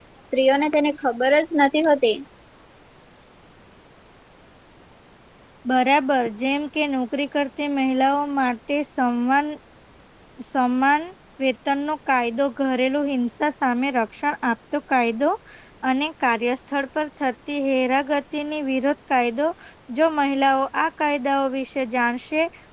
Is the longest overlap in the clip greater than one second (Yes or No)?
No